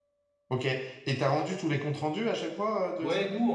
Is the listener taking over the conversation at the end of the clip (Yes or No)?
Yes